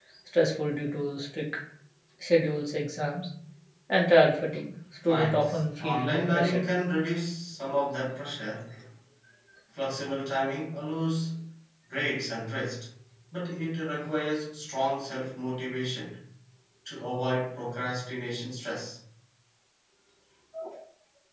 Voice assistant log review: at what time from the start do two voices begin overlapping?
5 s

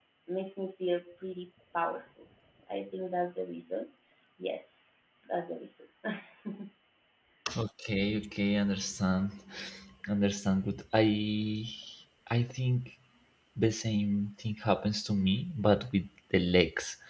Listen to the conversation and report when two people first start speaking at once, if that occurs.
none

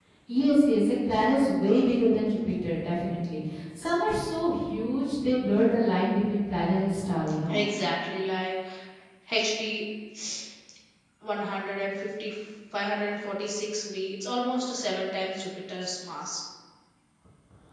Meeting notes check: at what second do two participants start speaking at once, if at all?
none

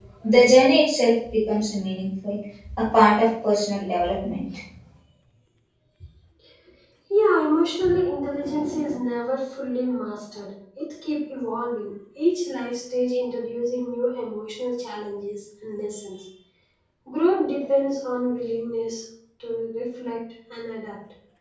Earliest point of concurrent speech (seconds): none

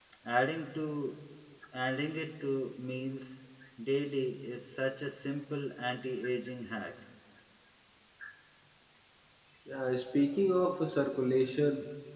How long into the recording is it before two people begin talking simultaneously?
none

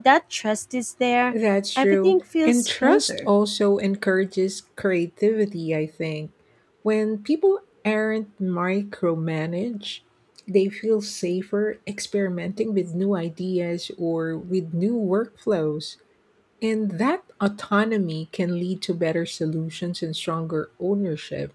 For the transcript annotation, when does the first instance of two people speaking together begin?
2 s

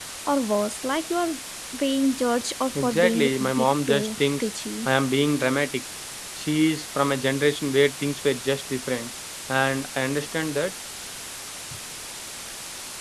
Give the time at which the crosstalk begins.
3 s

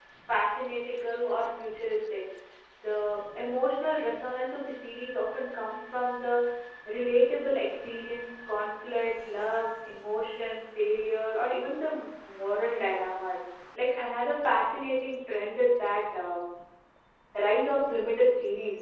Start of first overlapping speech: none

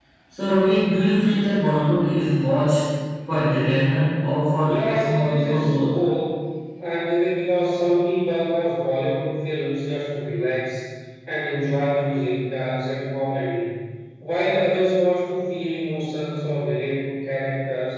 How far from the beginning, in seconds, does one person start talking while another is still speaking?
5 s

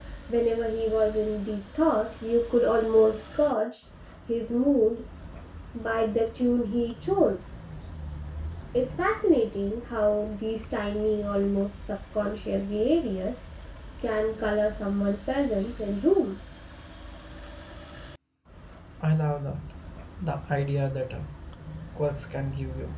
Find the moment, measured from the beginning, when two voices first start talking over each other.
none

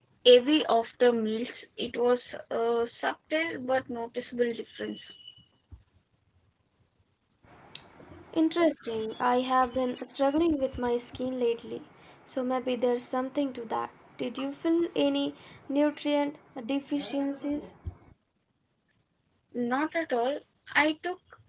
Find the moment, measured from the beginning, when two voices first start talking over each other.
none

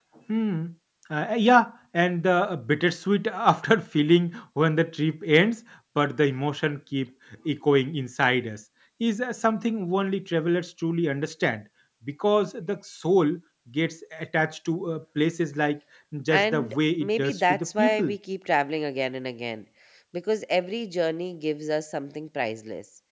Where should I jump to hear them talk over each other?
16 s

